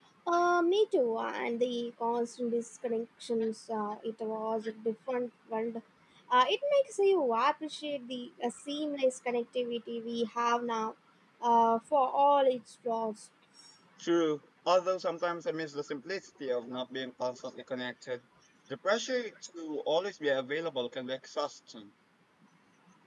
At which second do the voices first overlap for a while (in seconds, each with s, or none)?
none